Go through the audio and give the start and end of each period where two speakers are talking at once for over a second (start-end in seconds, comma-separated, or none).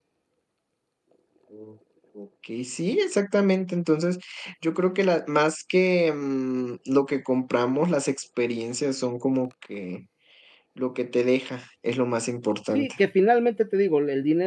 none